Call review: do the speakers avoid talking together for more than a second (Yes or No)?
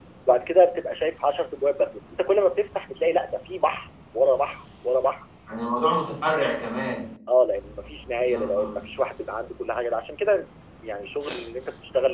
Yes